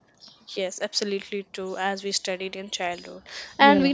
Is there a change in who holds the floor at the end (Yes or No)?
No